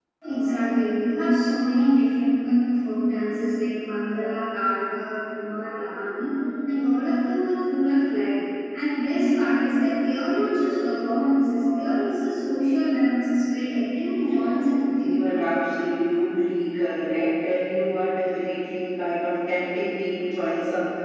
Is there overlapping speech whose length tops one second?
No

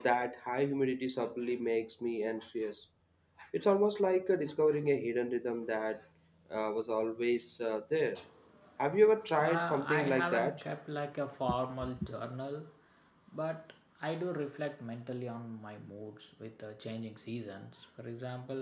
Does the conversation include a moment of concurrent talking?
Yes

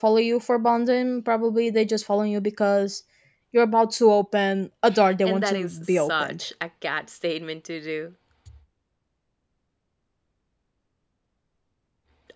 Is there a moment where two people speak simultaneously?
Yes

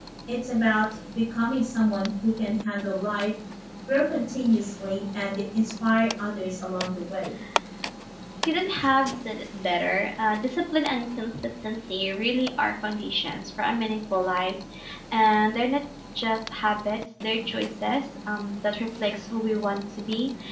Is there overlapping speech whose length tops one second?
No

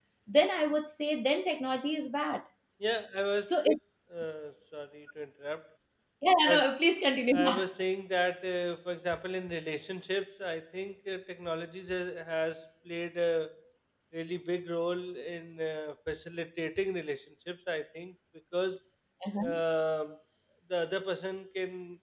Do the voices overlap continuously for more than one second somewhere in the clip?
No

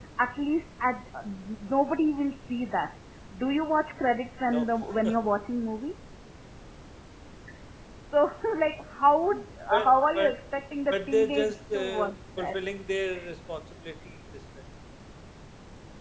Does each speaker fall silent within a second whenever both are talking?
No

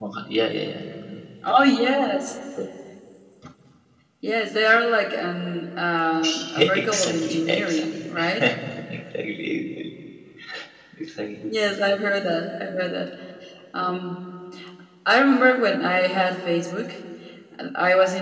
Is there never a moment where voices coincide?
No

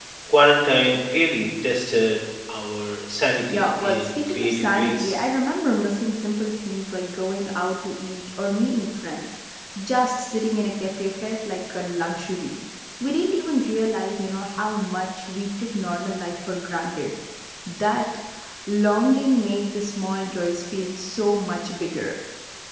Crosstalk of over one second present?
Yes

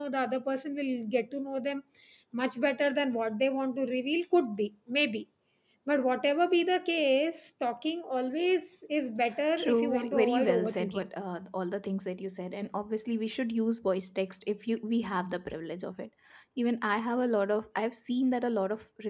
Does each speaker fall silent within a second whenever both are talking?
No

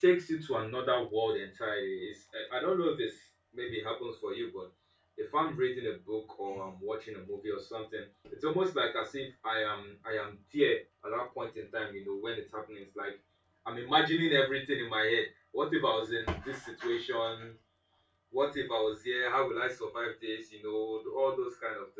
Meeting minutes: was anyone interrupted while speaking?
No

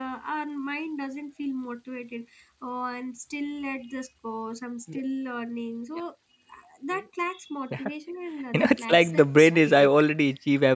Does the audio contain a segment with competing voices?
Yes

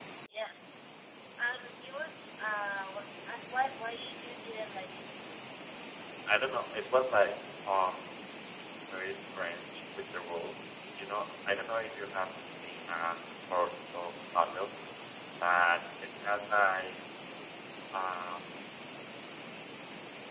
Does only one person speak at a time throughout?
Yes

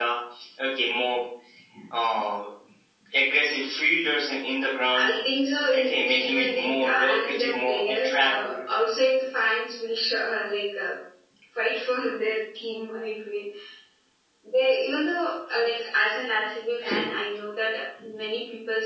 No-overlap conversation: No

